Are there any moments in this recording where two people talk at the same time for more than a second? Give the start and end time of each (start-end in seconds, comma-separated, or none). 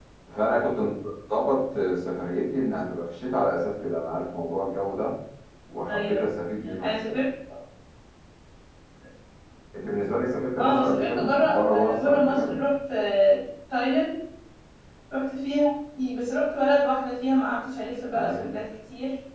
10.6-12.6